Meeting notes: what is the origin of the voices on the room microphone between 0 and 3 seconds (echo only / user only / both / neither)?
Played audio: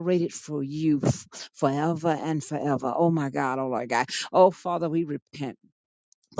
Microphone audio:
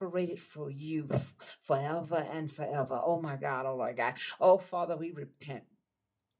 echo only